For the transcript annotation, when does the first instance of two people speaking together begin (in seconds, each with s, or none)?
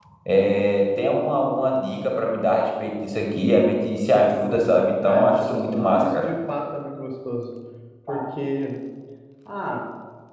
5.0 s